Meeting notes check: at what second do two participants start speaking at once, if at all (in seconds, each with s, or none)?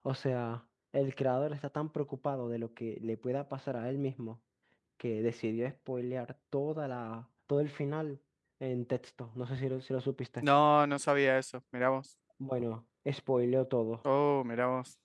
none